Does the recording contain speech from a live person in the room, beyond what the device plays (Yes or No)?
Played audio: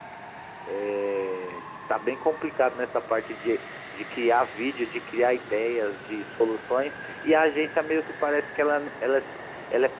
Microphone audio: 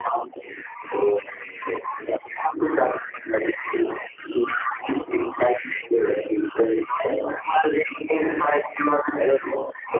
No